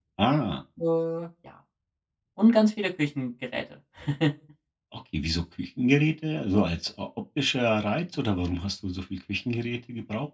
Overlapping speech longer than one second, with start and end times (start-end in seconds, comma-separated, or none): none